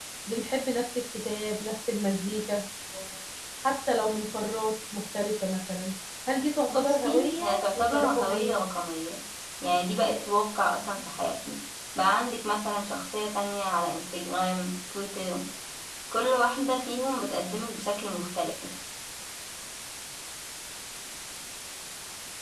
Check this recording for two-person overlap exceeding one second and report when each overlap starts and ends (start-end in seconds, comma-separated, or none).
6.7-8.6